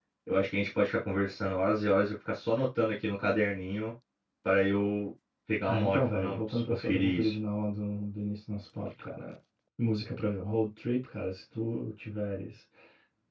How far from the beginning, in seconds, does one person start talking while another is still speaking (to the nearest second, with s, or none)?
6 s